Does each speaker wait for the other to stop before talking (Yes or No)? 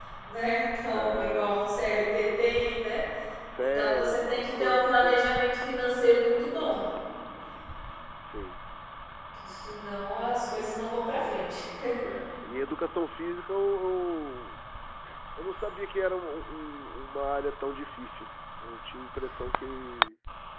No